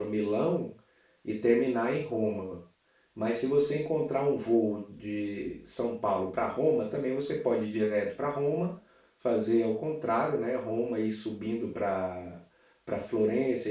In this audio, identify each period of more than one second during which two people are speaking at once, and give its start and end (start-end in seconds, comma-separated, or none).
none